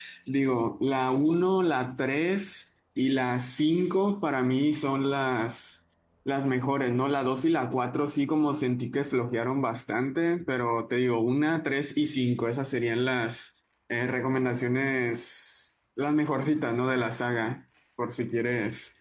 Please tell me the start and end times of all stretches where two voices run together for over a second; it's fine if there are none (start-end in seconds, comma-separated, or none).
none